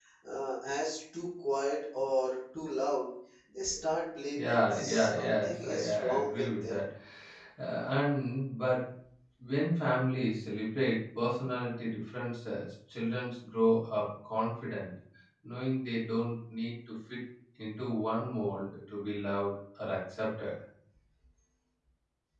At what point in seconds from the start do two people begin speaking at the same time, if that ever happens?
4.4 s

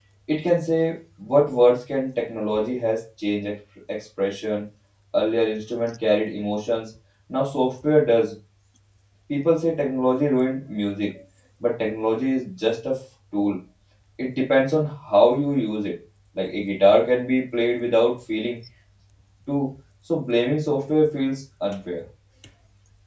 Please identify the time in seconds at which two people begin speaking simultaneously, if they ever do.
none

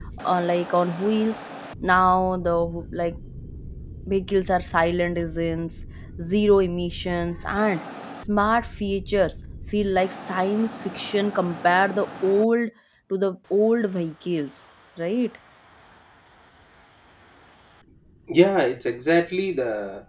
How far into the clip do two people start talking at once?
none

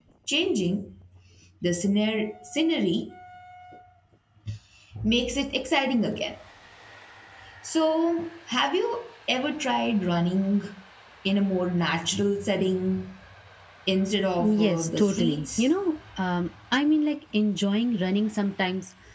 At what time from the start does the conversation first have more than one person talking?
14.4 s

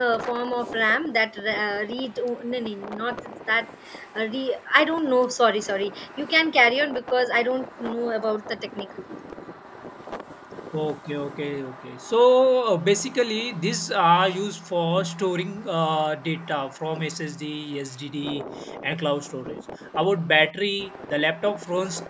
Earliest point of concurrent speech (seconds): none

